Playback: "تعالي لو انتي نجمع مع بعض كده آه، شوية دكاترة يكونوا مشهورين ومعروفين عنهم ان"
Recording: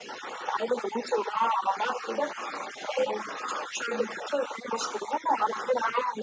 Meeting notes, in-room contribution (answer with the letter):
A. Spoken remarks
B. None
B